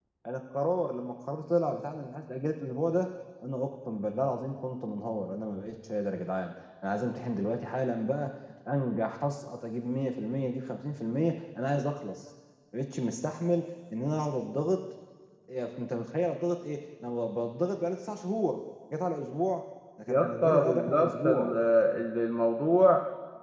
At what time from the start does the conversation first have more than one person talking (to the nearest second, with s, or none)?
20 s